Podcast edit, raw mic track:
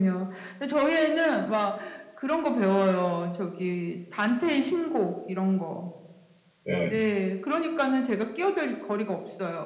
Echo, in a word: present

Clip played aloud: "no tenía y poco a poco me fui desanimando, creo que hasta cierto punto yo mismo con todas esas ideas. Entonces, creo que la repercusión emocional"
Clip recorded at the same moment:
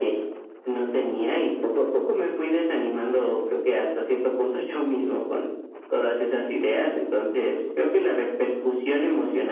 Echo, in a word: present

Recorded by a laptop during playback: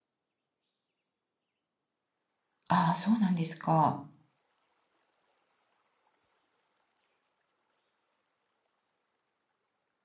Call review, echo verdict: none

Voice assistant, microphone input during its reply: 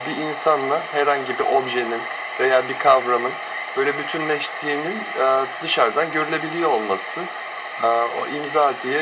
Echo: present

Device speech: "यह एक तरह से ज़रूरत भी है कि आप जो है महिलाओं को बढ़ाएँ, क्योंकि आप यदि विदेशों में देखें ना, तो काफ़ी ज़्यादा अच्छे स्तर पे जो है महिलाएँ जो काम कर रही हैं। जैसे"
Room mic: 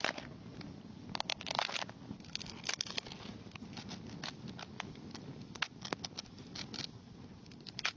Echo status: none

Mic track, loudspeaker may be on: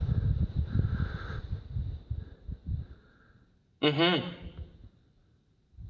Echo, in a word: none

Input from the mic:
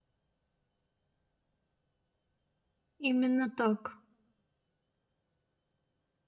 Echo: none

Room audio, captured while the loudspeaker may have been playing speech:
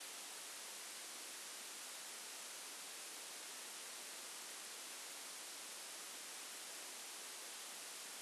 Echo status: none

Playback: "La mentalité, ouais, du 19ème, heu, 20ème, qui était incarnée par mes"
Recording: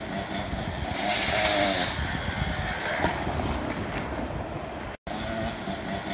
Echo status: none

